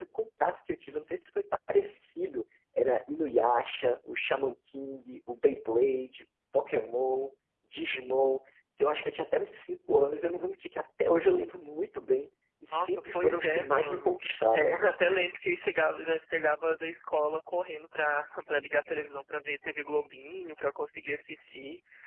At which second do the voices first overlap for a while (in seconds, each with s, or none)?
12.7 s